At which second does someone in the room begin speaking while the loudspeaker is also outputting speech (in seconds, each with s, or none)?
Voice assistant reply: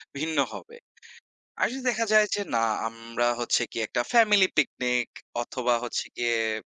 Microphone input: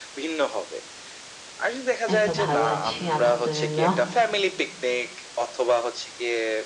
2.1 s